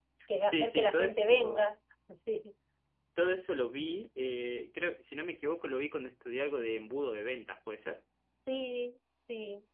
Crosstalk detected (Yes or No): Yes